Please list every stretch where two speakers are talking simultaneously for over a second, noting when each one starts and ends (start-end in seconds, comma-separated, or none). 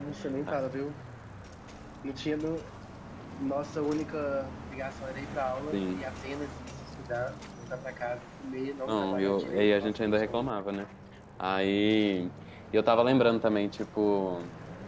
8.9-10.5